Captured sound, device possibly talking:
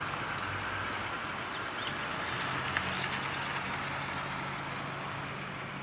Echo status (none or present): none